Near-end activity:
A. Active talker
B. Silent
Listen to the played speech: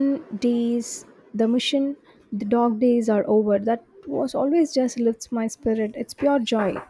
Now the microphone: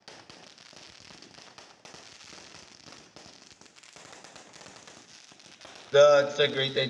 A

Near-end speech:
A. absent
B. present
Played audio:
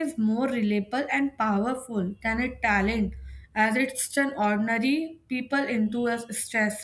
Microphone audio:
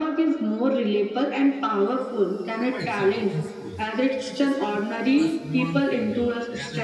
B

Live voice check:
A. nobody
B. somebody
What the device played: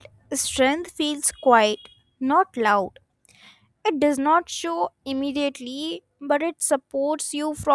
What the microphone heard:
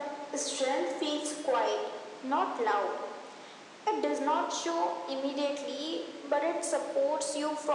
A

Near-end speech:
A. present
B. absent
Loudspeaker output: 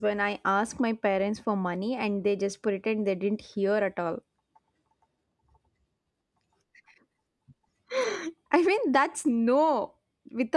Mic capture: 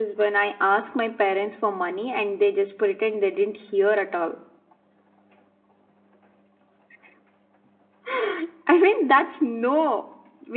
B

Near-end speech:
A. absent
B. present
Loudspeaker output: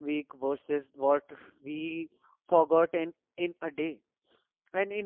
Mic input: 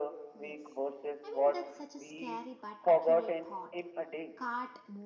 B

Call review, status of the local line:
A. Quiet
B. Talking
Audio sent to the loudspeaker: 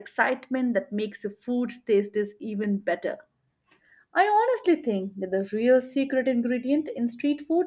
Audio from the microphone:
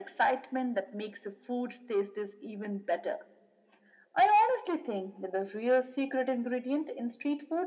A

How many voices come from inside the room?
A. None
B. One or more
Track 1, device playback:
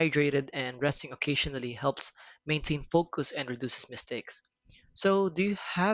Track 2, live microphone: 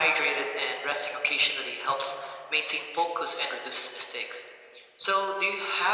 A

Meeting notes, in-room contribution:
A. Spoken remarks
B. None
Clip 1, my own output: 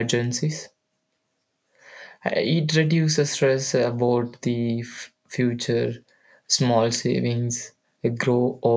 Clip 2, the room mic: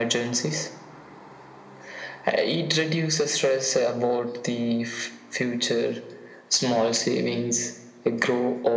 B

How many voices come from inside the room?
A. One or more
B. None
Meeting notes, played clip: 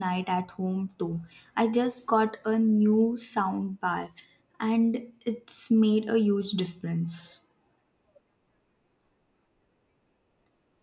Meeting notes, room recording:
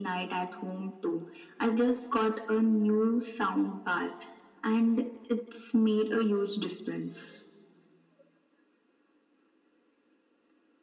B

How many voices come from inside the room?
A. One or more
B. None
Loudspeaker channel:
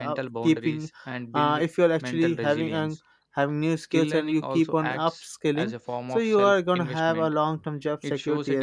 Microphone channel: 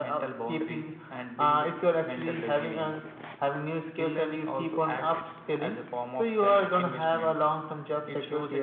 B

